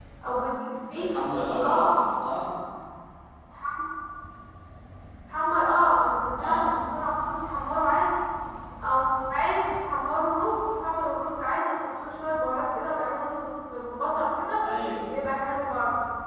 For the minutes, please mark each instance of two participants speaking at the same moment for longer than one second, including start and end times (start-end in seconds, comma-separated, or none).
none